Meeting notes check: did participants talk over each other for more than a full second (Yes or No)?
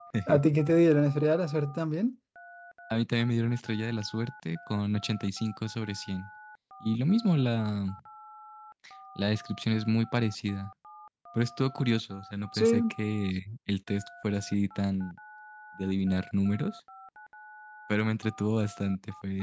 No